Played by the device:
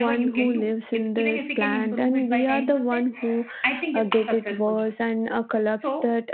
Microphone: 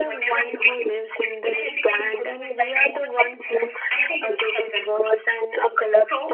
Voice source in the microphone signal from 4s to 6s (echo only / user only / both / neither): echo only